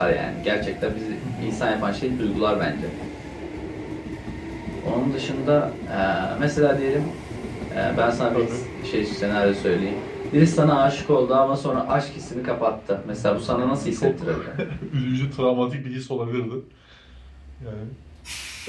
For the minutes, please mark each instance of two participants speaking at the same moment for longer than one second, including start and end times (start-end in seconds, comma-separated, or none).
13.1-14.4